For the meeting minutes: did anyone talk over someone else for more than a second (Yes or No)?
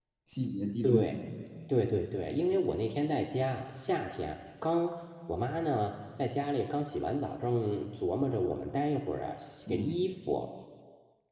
No